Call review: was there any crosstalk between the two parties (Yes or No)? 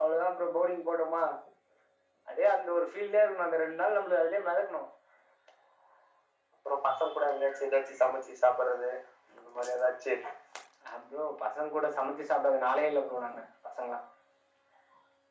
No